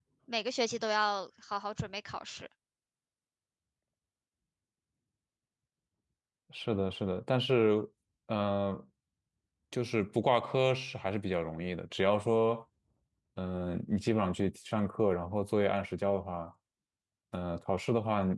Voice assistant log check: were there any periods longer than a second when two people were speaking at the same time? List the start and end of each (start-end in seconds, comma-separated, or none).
none